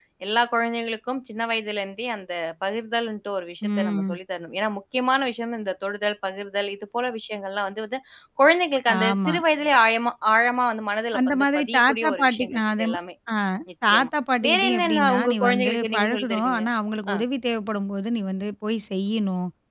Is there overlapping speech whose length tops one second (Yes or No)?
Yes